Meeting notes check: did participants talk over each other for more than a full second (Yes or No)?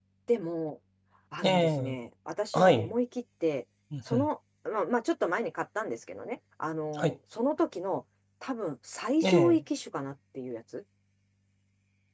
No